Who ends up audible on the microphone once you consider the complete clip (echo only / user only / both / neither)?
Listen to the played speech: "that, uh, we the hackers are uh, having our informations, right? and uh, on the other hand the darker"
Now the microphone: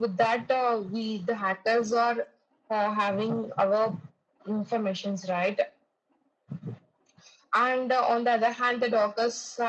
echo only